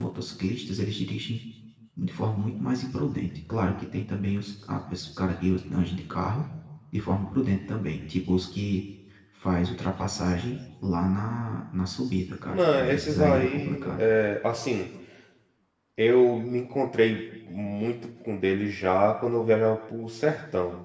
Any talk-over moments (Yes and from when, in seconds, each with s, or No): Yes, from 12.5 s